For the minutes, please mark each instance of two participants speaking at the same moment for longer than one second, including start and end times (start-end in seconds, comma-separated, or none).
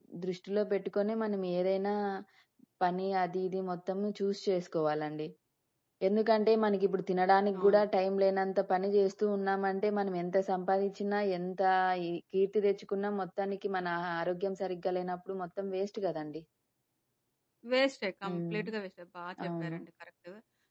none